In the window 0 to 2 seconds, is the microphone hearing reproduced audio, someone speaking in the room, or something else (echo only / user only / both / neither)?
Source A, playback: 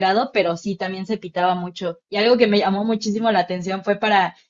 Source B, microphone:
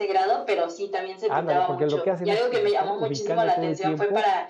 both